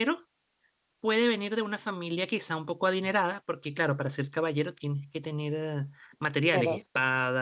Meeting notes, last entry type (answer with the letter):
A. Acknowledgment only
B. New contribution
A